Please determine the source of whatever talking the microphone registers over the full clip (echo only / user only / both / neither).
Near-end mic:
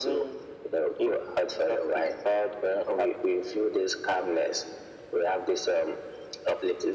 echo only